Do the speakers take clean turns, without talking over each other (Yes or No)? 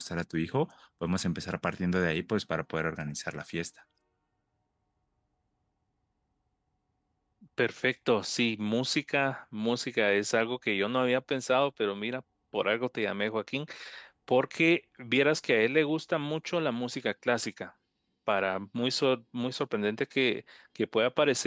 Yes